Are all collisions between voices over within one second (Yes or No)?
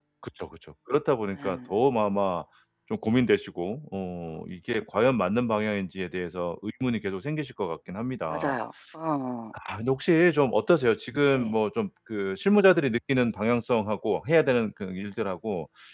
Yes